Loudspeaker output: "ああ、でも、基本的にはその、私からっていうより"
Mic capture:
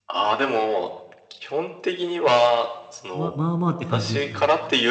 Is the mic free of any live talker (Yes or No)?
No